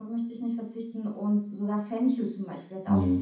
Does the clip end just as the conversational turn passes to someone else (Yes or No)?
No